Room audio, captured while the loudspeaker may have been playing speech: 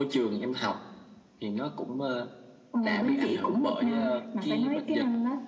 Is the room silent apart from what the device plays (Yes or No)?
Yes